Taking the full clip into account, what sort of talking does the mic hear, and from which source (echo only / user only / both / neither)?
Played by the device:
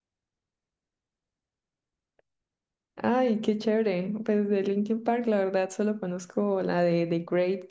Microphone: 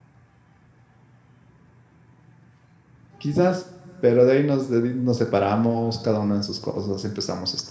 user only